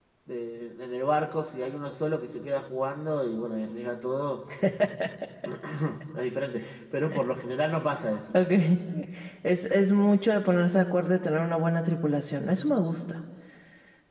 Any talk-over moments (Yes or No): No